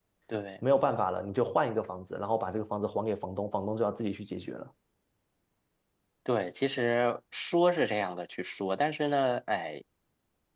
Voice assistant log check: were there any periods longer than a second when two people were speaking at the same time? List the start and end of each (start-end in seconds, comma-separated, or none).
none